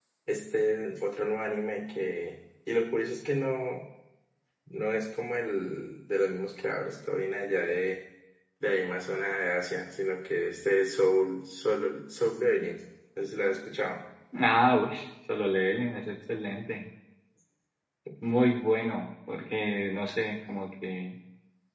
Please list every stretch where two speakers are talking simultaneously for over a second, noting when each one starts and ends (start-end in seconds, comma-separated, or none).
none